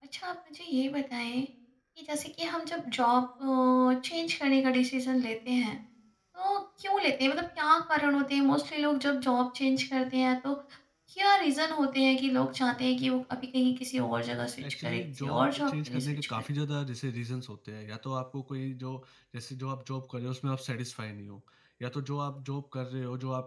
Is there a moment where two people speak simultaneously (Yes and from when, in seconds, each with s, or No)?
Yes, from 14.6 s